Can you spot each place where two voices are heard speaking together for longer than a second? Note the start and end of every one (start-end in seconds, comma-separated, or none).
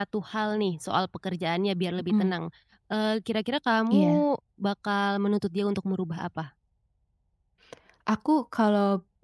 none